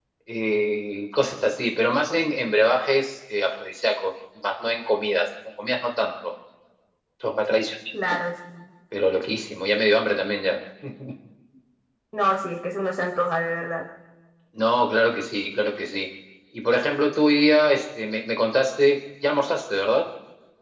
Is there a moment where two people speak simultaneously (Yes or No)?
No